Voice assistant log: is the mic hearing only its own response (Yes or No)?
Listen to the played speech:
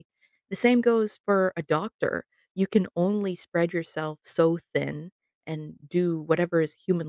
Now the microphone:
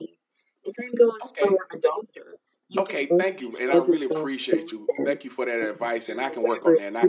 No